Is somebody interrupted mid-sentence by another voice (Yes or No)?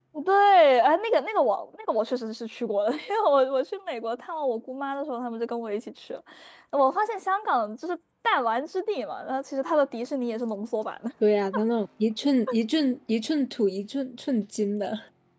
No